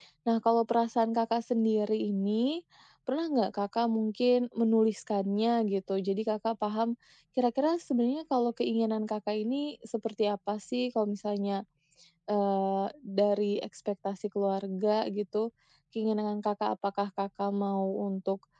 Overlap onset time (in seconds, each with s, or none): none